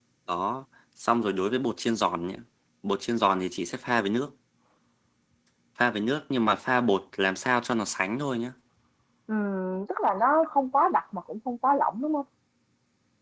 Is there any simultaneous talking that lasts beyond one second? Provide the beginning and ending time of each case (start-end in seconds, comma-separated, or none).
none